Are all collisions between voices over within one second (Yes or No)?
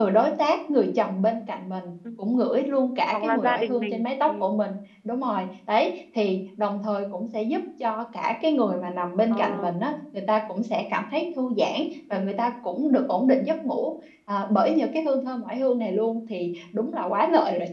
No